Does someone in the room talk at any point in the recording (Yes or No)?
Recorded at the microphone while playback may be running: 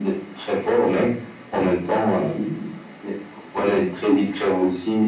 No